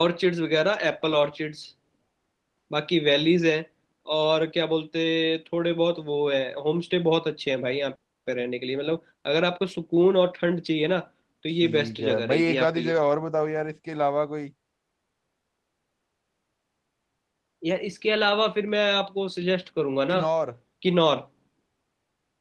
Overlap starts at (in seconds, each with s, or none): 11.6 s